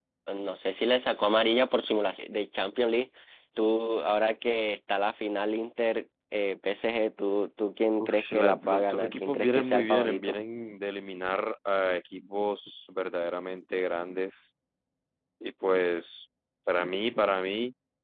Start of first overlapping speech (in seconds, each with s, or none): 8.0 s